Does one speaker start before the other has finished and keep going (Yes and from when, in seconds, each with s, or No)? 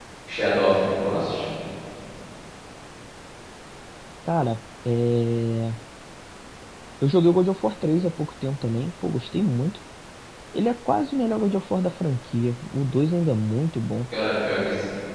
No